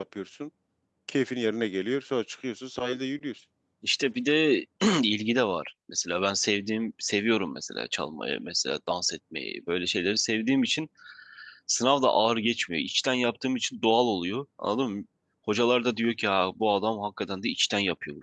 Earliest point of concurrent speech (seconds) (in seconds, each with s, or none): none